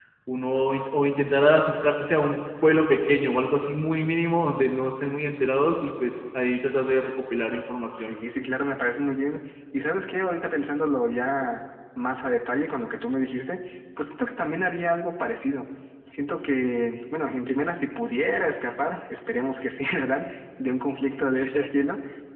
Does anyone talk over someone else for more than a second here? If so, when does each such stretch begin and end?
none

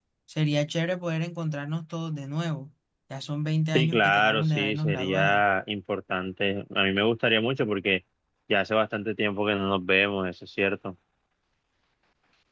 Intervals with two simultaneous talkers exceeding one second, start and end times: 3.7-5.4

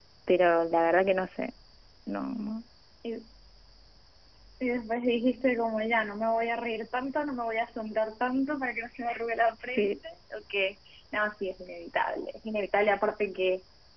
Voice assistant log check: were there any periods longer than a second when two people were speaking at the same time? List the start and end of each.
none

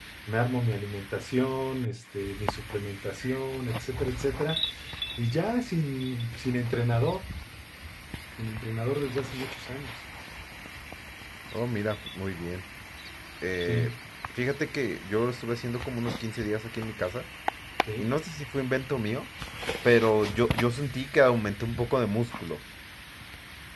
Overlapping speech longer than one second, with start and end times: none

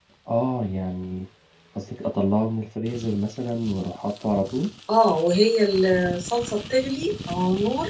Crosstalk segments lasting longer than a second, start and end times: none

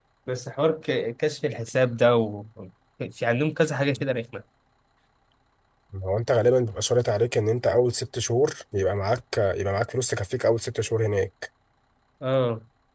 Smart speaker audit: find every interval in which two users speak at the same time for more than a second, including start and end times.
none

